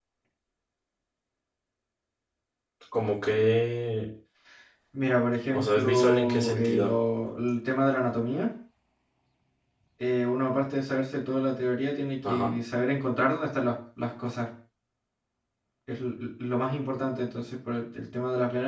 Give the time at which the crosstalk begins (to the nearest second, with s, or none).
6 s